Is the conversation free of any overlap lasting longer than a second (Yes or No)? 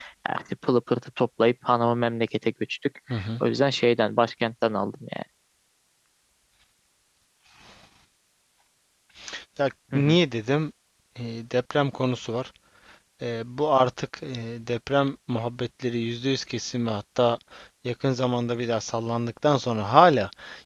Yes